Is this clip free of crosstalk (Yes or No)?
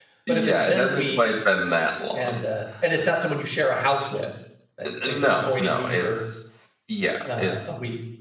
No